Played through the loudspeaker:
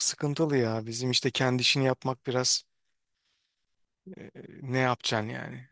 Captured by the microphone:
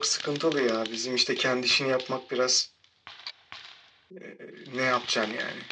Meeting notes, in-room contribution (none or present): none